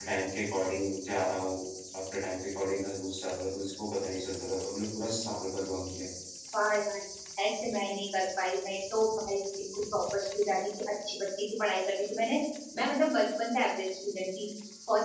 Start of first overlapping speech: none

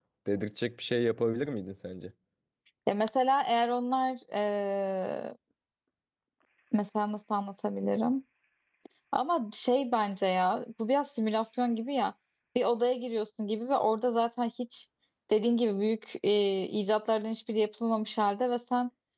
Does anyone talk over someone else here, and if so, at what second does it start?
none

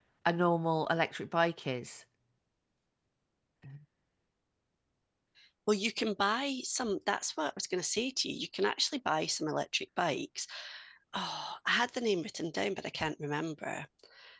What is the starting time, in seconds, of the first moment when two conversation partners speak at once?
none

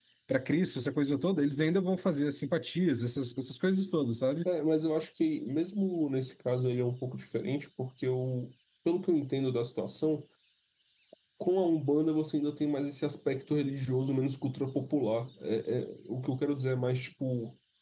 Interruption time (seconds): none

